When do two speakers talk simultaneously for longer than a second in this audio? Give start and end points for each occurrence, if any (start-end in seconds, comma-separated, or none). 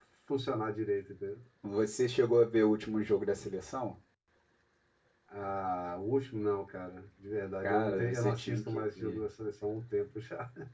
7.6-9.2